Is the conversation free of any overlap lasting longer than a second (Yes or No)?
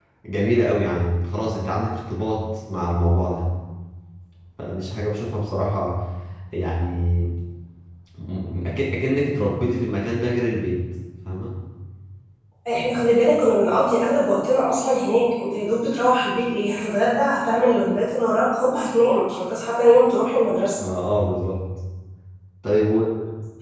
Yes